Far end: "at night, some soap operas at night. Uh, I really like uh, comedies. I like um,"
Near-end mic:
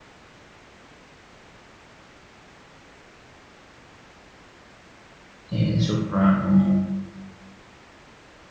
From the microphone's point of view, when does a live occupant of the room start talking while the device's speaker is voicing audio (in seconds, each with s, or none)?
5.5 s